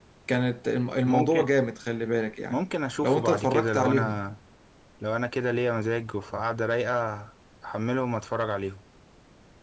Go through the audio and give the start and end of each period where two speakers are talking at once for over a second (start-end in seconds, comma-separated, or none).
3.0-4.2